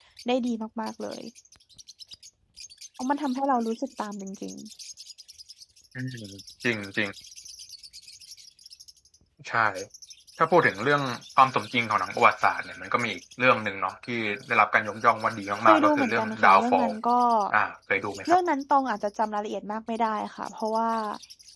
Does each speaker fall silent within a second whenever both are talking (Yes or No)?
No